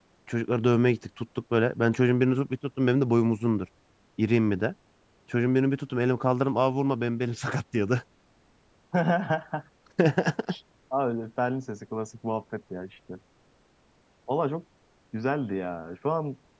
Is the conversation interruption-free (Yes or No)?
Yes